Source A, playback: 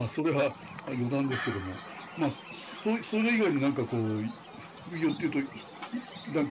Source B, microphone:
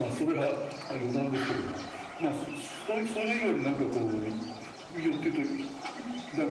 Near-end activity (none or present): none